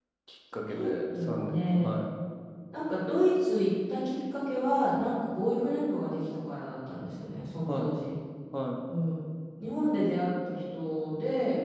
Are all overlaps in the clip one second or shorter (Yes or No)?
No